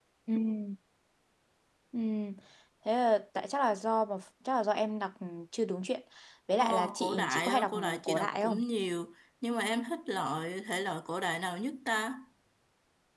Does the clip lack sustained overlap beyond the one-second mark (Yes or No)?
No